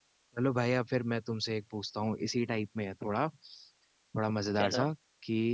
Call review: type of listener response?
listening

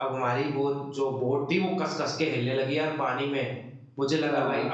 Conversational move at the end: listening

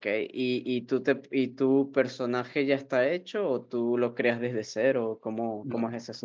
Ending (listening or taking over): taking over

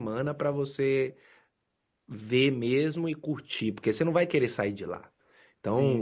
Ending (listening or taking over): listening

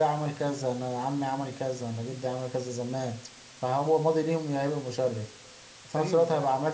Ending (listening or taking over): listening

